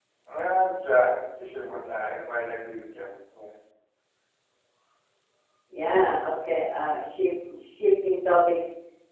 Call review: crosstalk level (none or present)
none